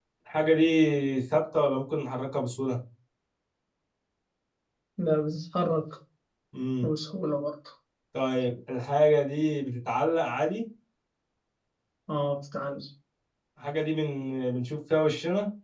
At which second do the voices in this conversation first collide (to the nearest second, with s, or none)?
none